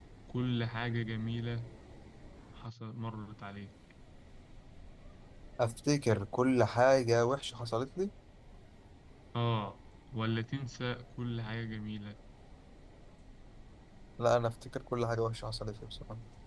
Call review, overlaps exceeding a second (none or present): none